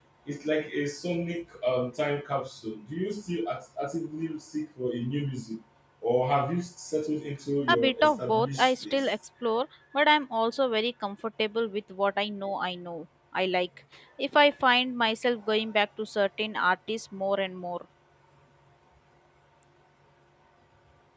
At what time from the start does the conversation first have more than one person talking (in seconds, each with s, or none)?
7.7 s